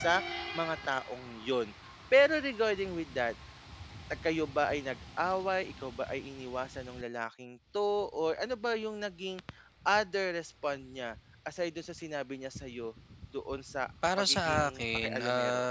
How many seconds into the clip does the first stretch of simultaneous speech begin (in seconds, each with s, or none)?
14.0 s